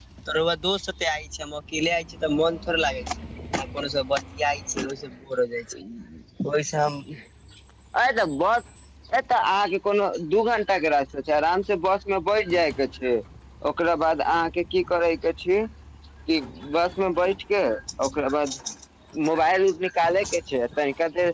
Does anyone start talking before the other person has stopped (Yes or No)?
No